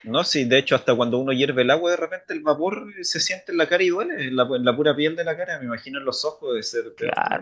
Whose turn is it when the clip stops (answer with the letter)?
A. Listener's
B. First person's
A